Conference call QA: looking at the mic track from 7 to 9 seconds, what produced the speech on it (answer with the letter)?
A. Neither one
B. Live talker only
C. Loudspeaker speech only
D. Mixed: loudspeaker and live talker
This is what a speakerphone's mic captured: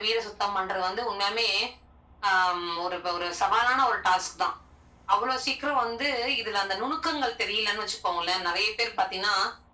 C